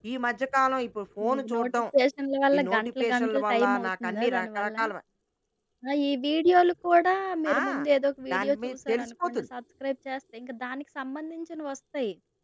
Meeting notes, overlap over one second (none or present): present